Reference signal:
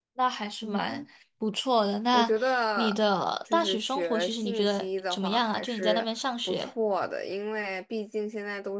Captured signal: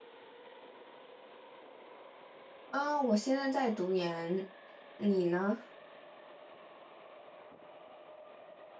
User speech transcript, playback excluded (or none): 啊，我现在在读研，你呢？